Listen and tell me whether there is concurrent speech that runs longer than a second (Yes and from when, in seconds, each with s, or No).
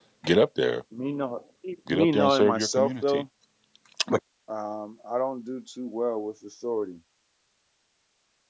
Yes, from 1.9 s